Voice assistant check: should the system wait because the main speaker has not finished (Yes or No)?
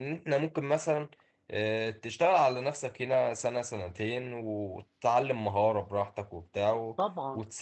Yes